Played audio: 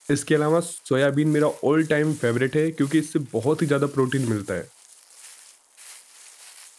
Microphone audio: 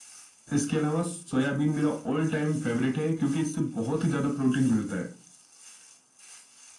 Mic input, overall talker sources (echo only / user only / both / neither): echo only